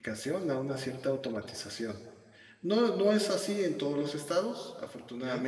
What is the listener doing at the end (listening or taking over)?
listening